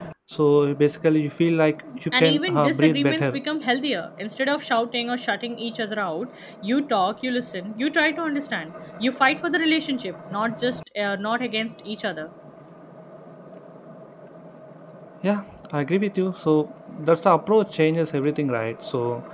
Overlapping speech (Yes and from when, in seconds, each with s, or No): Yes, from 2.1 s